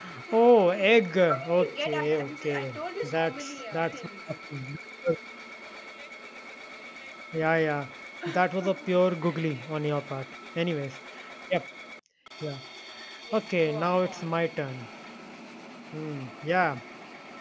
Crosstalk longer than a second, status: present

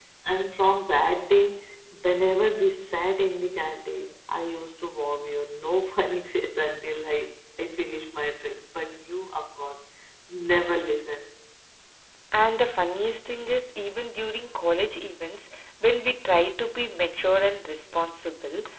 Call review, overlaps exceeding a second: none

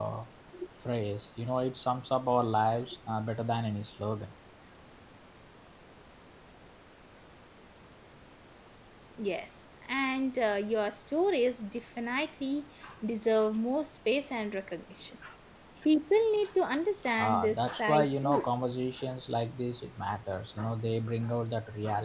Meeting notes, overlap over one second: present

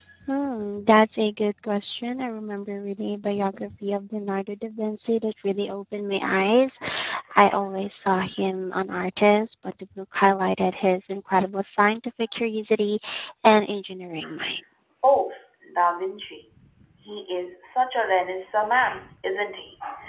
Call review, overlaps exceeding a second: none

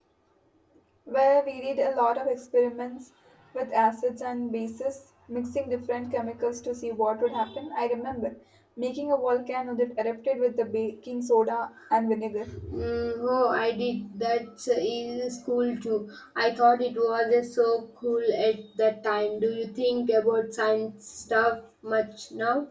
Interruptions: none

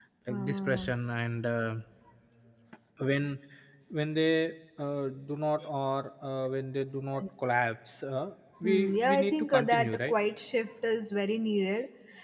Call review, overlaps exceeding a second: present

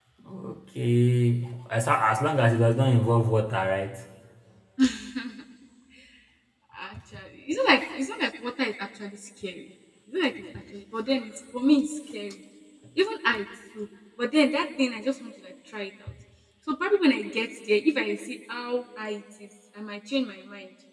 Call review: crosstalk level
none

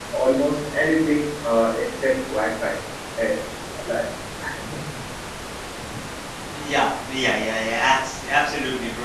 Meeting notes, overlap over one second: none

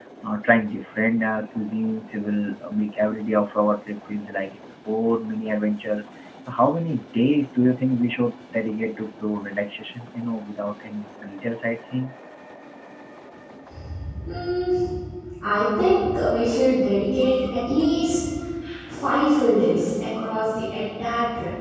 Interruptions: none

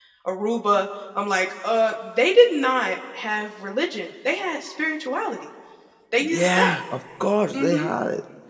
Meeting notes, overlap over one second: none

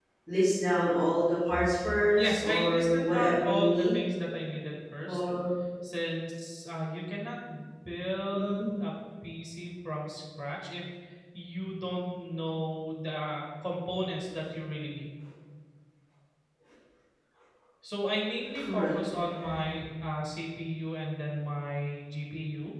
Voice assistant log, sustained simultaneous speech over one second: present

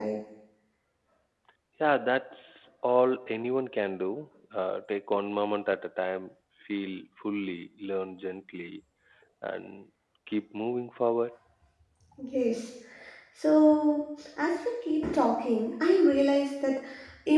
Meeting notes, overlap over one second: none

